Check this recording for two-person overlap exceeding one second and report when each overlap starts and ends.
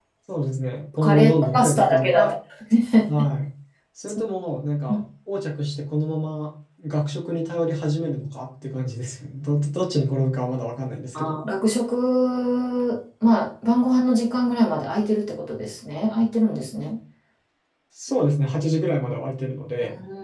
1.0-2.3

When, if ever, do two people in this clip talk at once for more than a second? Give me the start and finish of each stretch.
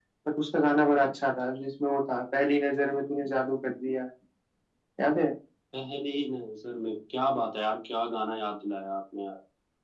none

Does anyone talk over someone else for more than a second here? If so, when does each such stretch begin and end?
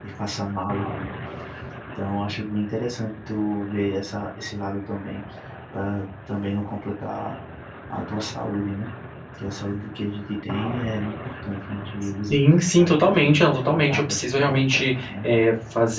12.8-15.2

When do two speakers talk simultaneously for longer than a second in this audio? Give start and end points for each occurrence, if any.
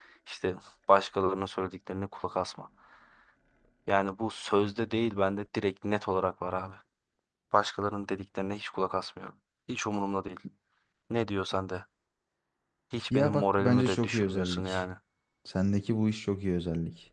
13.1-14.8

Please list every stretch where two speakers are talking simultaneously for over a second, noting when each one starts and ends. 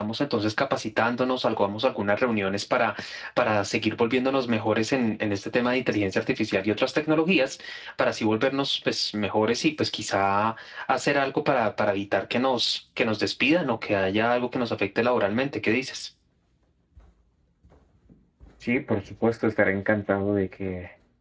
none

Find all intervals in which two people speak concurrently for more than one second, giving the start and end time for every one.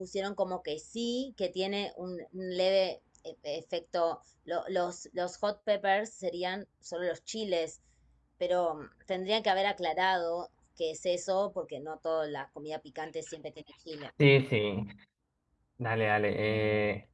none

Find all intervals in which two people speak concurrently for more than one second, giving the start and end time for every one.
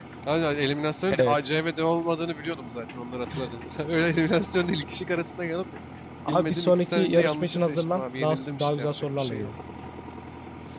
6.3-9.5

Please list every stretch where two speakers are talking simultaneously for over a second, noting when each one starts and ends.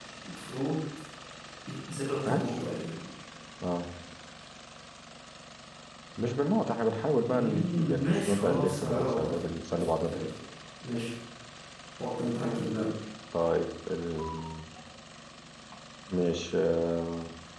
7.3-9.3

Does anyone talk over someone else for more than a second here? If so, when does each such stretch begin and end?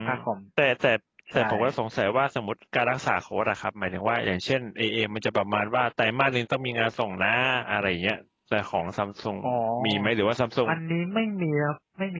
none

